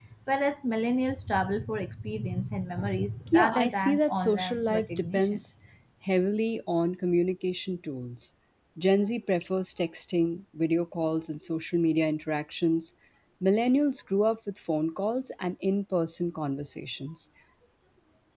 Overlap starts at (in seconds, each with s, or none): 3.3 s